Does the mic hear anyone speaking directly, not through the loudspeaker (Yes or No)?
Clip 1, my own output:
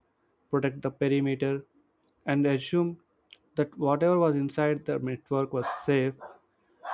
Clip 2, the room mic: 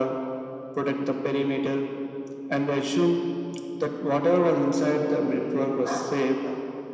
No